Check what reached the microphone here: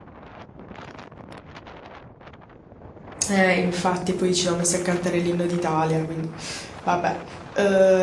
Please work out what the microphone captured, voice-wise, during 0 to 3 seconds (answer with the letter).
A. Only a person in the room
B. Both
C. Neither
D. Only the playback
C